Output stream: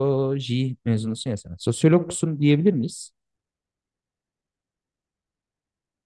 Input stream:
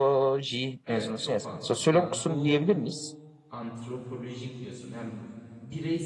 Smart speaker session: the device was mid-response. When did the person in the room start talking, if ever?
0.9 s

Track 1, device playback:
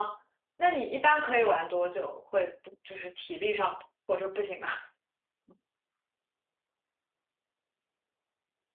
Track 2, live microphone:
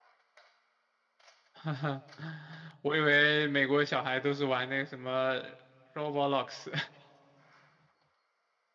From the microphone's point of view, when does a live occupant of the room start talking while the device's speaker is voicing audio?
1.5 s

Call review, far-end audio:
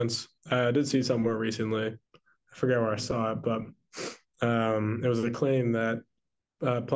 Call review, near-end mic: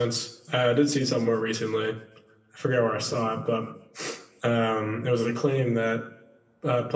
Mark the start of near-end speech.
none

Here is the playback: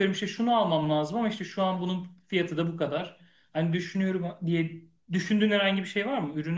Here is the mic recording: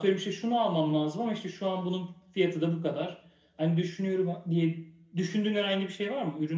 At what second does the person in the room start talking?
none

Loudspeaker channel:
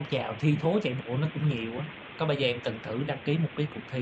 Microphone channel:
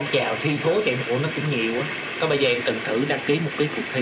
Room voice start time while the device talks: none

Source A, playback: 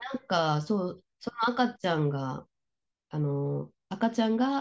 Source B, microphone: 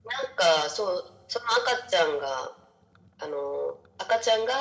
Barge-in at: none

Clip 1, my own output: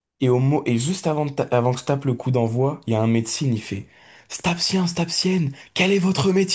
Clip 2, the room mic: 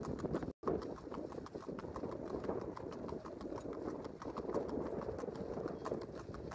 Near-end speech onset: none

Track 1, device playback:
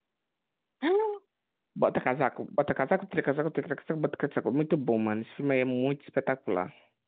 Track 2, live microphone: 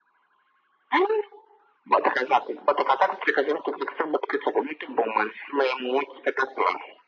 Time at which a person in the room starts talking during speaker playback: none

